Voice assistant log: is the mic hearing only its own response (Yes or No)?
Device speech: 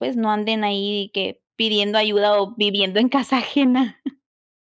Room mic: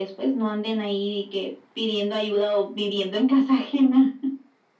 Yes